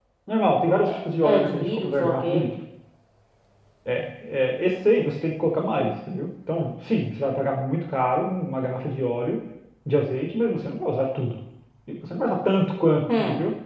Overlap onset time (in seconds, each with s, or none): 0.8 s